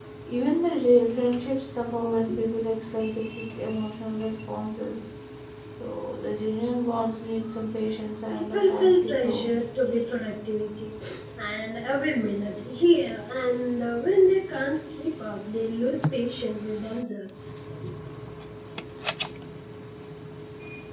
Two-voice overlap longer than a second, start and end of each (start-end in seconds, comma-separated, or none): 8.3-9.5